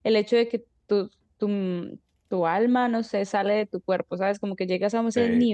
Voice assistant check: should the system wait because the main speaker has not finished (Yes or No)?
Yes